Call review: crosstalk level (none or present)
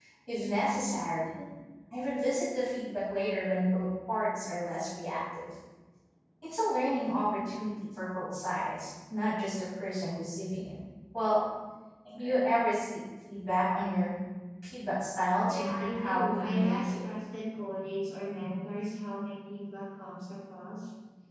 present